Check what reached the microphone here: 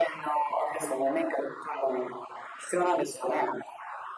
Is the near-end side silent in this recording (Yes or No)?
Yes